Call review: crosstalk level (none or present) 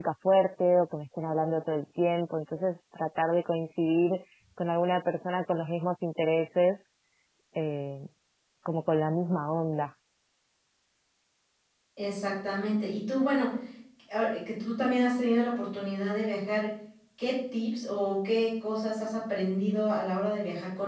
none